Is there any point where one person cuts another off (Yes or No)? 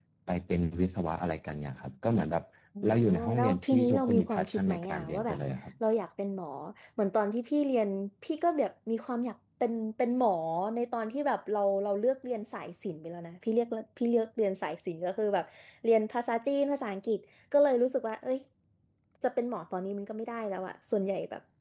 Yes